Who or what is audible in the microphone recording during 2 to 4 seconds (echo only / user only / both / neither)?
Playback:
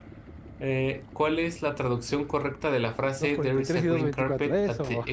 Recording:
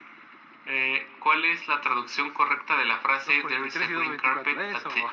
echo only